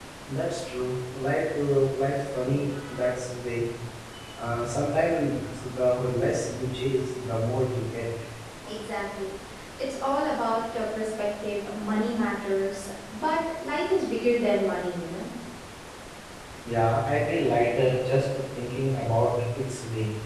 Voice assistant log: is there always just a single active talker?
Yes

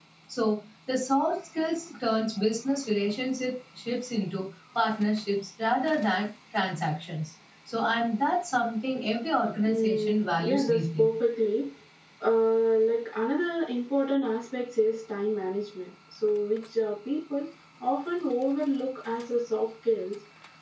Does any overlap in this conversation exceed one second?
Yes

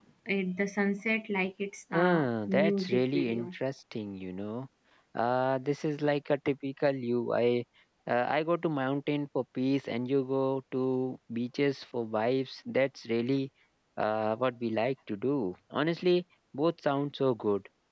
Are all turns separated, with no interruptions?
No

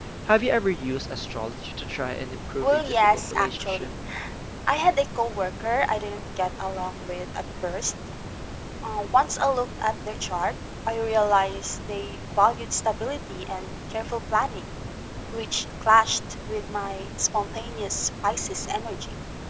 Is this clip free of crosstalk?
No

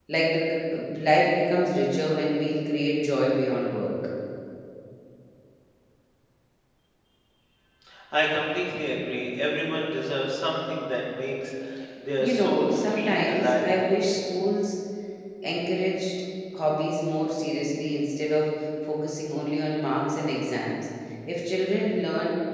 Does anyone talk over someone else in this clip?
Yes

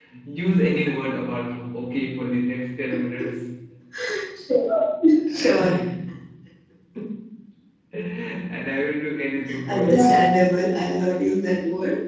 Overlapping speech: Yes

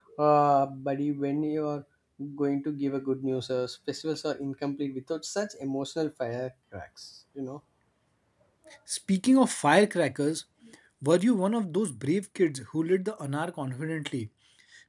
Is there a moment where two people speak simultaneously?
No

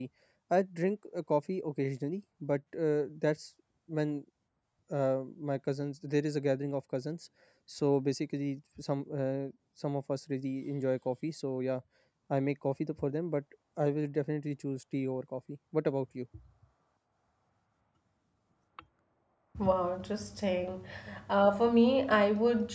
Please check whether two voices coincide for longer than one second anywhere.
No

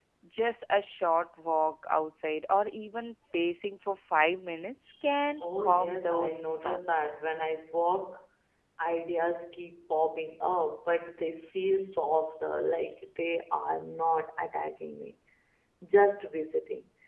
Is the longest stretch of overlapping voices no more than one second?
No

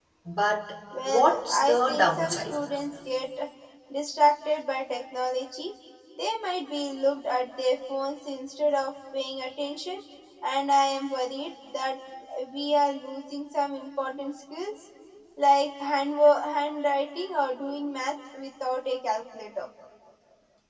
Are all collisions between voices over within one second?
No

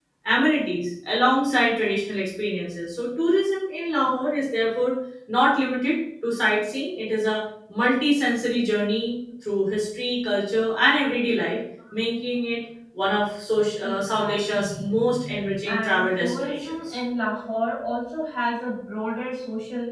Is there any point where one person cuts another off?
Yes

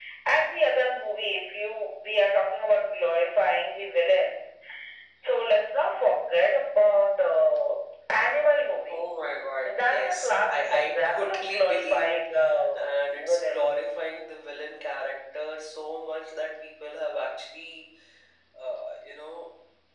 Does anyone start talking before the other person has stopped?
Yes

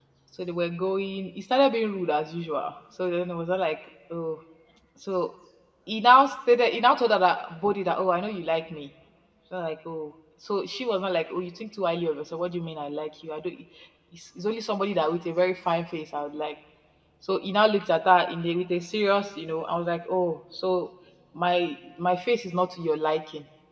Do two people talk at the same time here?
No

